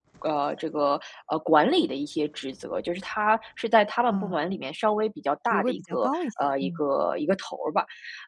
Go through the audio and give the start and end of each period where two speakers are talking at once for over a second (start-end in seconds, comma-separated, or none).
5.5-6.8